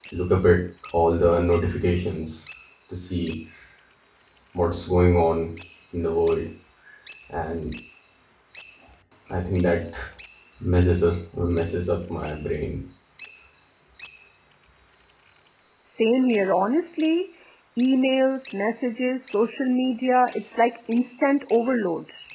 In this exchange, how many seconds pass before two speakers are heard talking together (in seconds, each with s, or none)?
none